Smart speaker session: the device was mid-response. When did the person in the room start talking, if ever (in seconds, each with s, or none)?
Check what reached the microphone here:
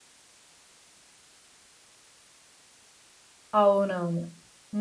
3.6 s